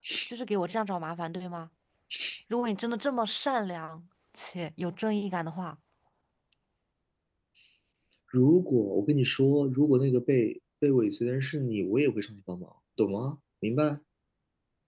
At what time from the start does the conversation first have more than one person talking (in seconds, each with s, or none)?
none